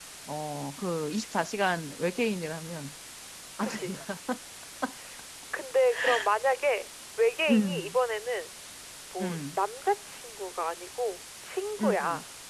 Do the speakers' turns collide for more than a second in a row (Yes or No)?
No